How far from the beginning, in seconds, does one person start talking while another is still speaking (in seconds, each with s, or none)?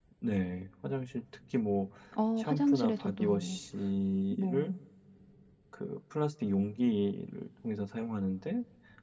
2.4 s